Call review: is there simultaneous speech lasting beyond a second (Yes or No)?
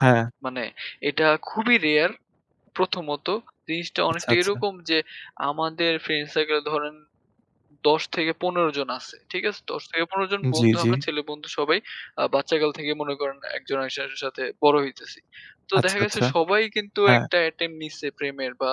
No